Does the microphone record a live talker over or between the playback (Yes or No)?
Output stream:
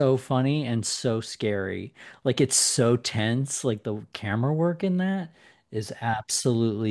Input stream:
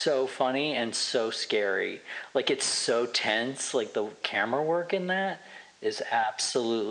No